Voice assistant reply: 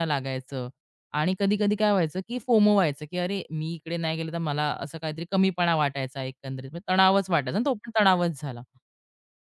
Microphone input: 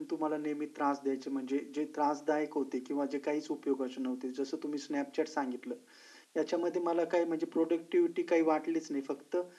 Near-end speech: present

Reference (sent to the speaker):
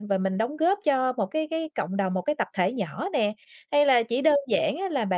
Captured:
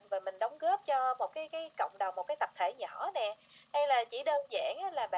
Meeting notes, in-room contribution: none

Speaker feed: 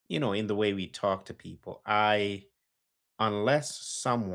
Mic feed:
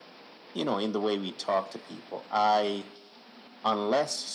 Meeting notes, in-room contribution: none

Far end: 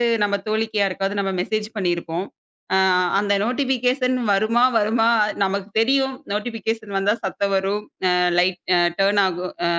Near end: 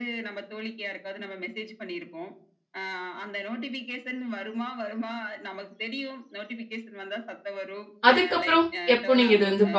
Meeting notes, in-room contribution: present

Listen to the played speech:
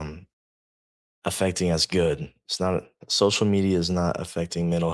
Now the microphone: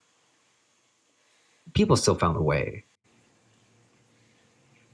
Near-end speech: present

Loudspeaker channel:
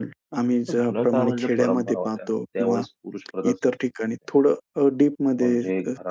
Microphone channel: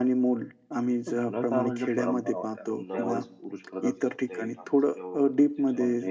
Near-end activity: present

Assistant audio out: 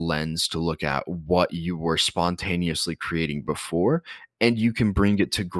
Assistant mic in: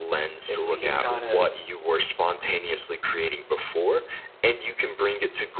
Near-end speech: present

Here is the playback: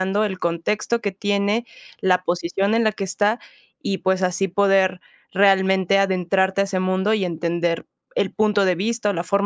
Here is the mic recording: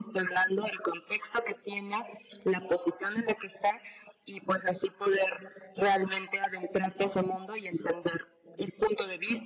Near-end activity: none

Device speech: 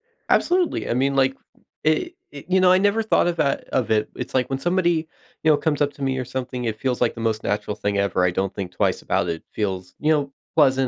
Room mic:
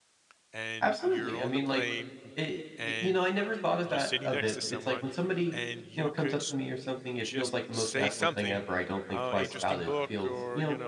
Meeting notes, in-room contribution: present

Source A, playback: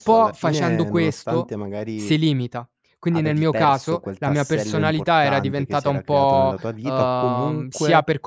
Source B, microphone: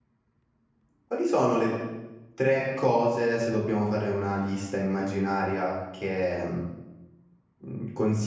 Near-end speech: present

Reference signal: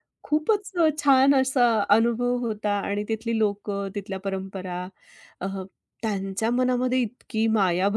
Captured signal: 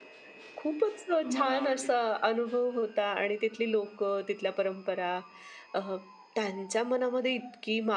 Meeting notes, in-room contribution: present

